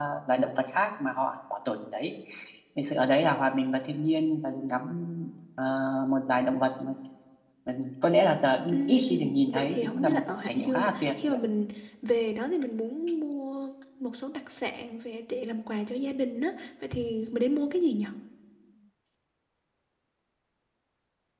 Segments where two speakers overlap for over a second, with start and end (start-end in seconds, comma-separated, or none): 8.7-11.4